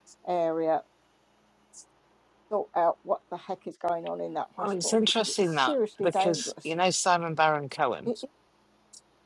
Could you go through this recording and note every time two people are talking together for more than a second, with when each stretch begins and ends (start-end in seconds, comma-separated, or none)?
4.6-6.5